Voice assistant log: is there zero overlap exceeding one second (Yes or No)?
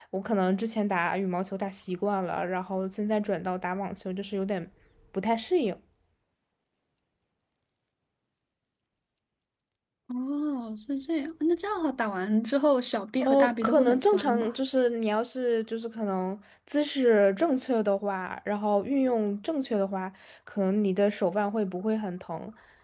No